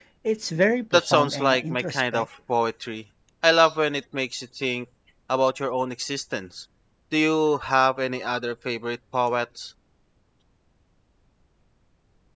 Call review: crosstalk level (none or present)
present